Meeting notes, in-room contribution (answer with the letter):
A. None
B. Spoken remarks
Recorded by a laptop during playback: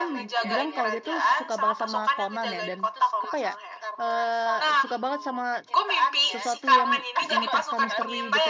B